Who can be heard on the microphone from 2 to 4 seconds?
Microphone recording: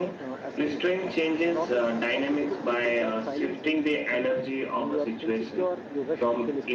echo only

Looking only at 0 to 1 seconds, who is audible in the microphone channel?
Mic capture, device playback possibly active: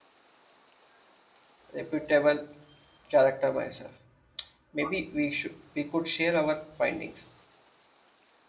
neither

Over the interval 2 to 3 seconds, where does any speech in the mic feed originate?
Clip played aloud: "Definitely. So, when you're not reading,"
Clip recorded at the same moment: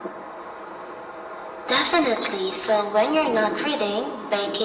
echo only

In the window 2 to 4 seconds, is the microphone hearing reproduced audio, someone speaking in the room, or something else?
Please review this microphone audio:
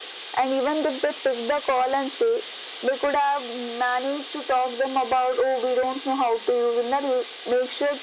echo only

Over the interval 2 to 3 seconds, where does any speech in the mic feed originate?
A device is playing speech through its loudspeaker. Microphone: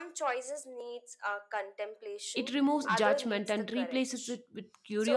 both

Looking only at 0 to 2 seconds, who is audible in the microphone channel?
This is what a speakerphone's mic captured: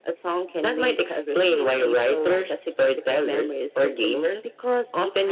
echo only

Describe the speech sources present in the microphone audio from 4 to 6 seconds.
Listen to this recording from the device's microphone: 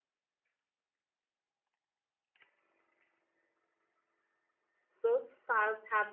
user only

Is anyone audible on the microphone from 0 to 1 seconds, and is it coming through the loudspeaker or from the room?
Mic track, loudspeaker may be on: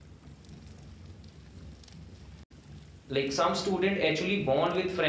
neither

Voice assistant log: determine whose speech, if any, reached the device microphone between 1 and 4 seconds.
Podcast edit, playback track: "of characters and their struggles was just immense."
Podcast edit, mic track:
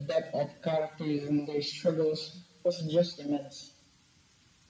echo only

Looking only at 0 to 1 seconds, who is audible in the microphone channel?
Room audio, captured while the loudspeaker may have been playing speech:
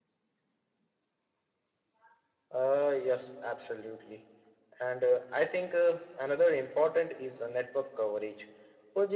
neither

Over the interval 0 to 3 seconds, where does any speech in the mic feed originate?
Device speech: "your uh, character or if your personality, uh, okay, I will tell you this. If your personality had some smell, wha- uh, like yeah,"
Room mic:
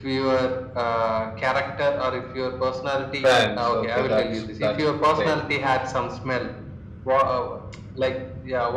echo only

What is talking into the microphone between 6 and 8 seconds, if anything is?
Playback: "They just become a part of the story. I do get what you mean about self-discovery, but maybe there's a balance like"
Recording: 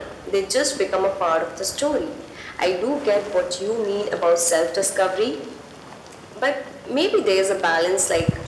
echo only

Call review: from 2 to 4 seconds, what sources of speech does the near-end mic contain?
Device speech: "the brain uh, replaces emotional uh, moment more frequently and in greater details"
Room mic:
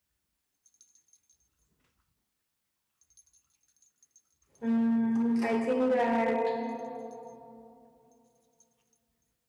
neither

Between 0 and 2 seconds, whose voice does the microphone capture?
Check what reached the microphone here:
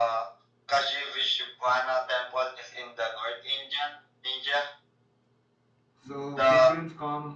echo only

